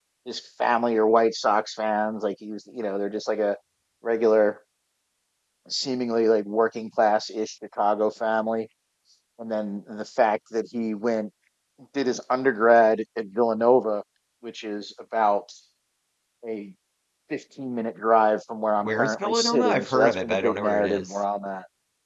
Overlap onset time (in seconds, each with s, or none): 18.9 s